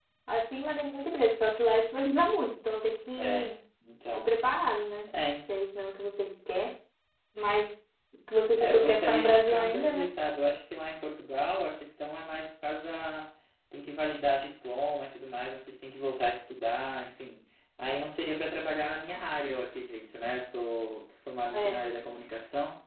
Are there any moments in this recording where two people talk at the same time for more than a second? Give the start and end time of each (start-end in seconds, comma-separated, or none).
8.6-10.1